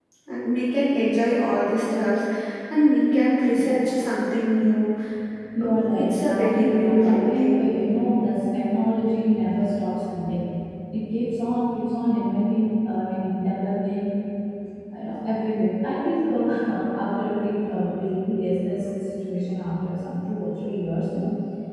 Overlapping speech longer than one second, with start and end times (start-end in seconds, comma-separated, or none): 5.6-7.5